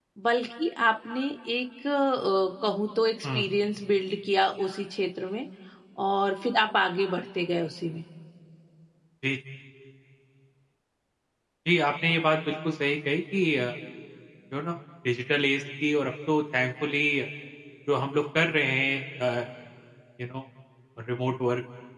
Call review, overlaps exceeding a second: none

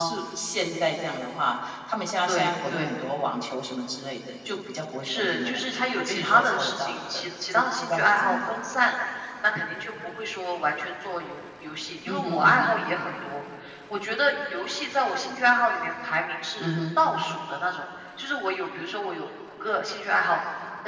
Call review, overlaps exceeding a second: present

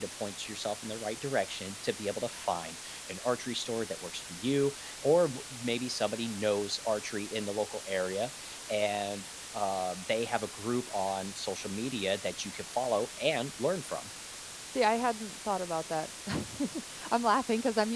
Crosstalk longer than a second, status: none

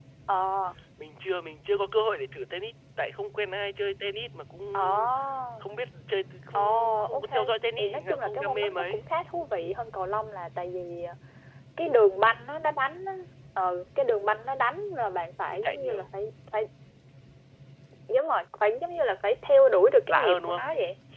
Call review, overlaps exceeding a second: present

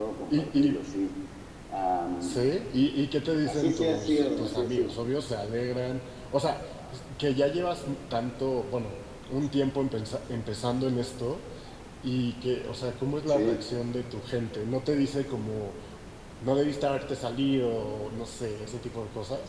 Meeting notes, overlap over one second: present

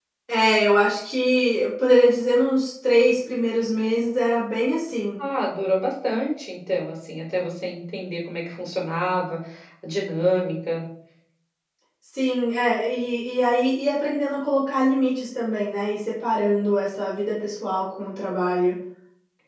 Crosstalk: none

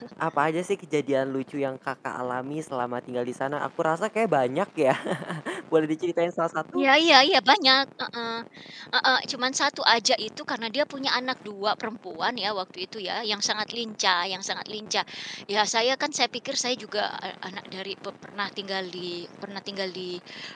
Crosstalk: none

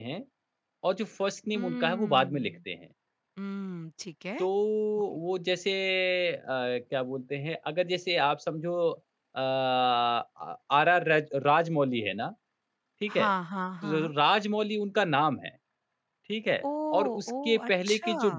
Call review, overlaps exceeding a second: present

